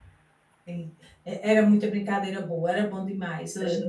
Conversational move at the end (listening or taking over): listening